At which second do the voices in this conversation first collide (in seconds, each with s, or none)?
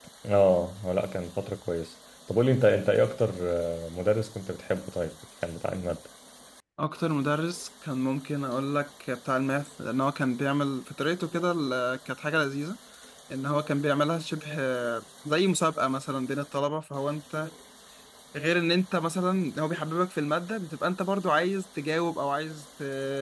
none